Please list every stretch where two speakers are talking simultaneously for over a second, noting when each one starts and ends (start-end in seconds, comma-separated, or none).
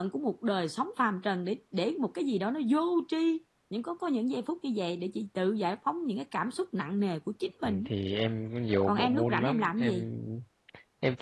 8.8-10.1